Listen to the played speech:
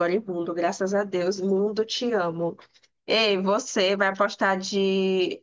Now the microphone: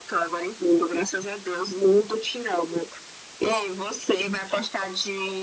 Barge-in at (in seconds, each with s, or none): none